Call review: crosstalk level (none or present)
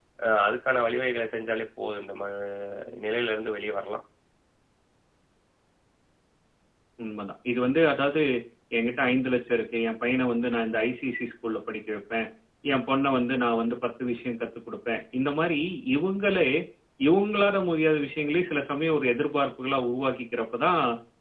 none